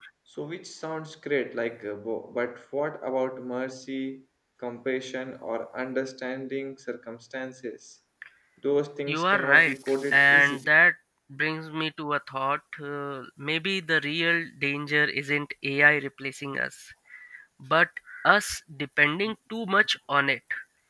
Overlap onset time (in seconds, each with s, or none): 9.1 s